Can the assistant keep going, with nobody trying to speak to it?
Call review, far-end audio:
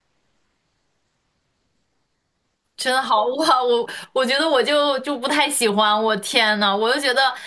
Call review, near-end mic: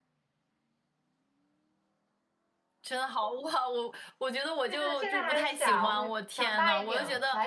No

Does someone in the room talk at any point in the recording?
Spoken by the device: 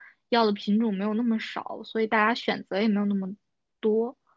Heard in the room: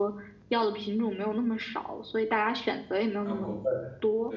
Yes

